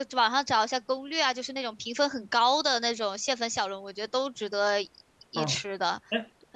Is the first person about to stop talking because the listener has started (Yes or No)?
Yes